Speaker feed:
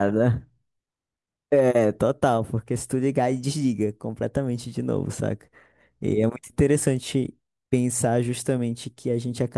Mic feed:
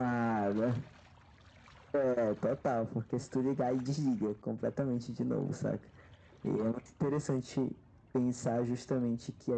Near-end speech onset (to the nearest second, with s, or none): none